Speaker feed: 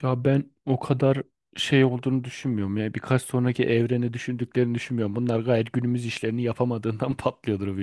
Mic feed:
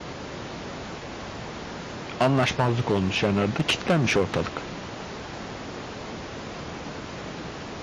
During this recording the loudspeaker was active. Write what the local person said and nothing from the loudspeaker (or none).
anlaşmazlık olmuş yani arada kilitlenmiş ortalık.